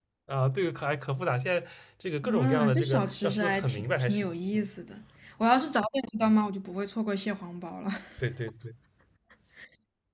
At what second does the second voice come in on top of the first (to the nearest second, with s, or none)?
2 s